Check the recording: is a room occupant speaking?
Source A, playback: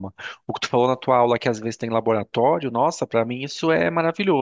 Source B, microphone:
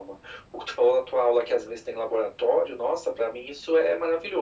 No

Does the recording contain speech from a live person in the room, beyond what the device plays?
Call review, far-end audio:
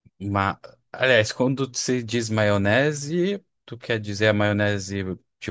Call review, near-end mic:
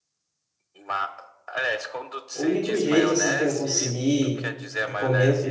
Yes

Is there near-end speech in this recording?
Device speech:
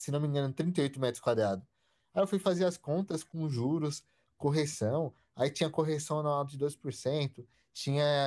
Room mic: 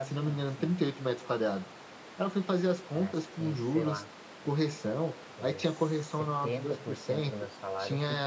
Yes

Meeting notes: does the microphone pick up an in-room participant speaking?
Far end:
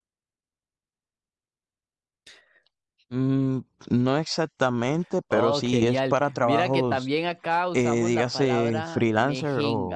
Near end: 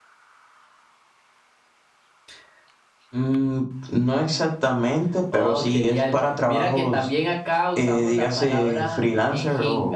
No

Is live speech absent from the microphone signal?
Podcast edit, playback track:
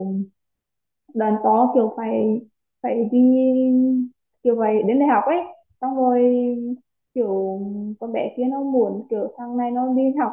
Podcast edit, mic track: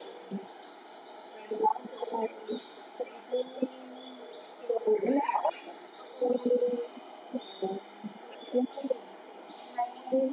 Yes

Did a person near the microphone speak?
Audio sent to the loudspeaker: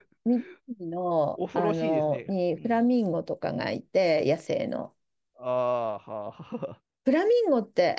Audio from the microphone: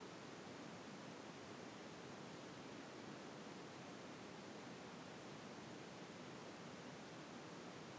No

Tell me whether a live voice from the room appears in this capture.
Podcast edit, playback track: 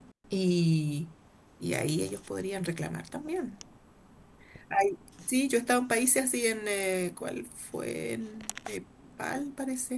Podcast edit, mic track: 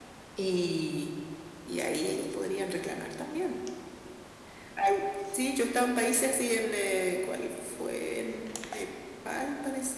No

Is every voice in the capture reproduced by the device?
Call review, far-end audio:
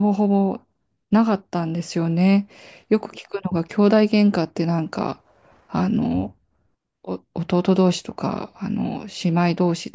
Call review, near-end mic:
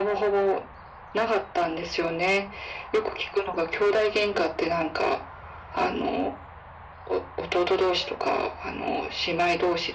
Yes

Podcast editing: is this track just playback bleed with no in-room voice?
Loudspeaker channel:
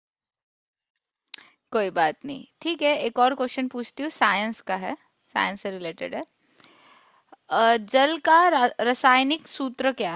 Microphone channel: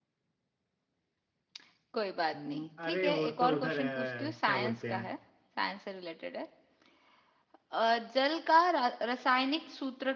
No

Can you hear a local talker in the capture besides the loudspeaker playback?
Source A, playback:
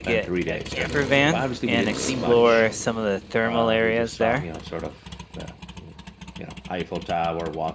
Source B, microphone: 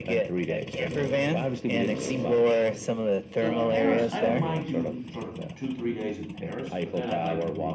Yes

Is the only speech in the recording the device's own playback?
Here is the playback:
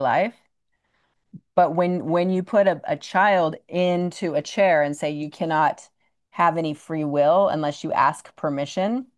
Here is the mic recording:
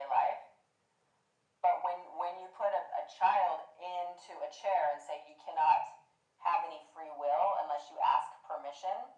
Yes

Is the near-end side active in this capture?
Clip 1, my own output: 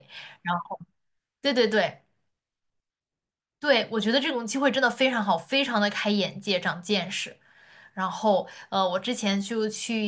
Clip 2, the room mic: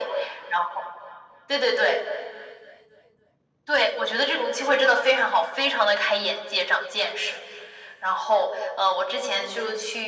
No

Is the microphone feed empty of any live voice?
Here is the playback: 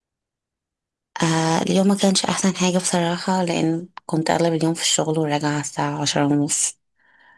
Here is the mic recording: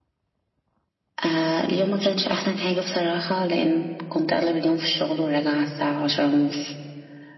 Yes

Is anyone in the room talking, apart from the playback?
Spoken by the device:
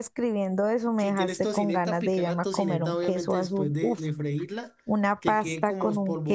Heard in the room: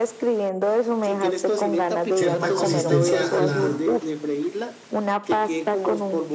Yes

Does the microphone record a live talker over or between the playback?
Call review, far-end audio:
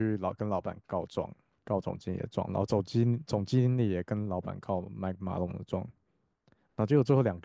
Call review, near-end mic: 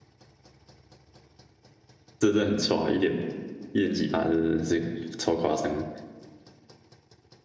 Yes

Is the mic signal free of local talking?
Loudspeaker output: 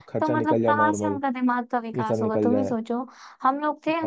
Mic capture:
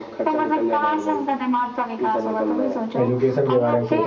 No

